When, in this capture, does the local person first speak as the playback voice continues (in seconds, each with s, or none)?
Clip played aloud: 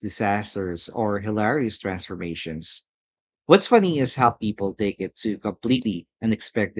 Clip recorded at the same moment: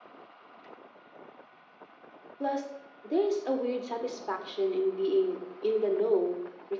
2.4 s